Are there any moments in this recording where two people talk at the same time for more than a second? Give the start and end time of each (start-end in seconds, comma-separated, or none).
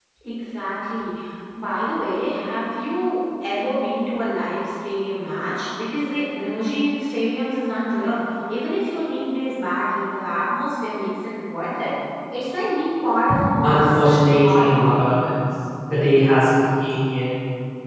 13.6-15.0